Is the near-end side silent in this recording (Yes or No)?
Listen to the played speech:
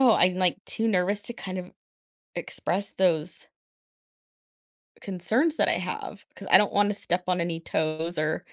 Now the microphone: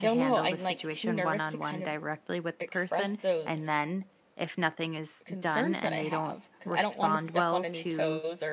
No